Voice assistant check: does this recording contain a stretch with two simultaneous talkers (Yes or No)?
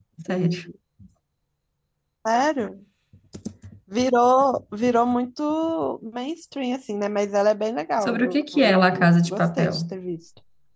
Yes